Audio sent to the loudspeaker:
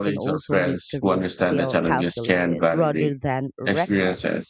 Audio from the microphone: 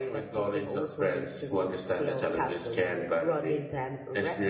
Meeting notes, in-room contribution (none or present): none